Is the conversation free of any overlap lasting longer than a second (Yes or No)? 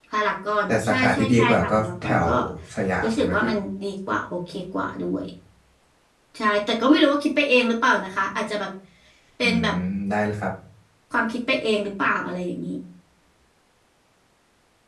No